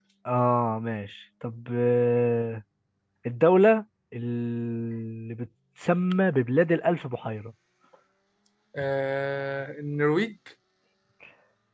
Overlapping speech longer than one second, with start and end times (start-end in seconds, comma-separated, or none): none